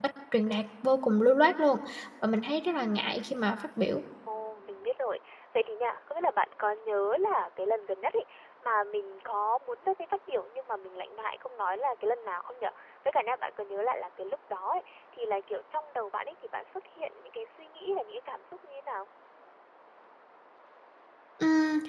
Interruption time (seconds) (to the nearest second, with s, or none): none